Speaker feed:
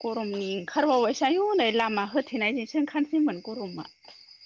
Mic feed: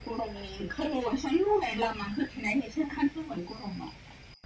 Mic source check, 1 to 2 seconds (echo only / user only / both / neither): echo only